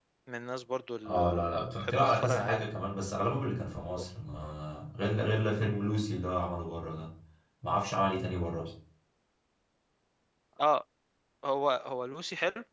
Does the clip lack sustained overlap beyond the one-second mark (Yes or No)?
No